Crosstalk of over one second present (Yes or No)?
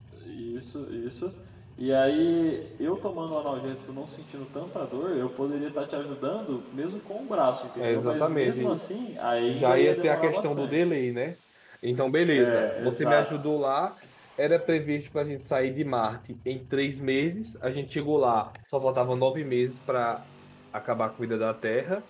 Yes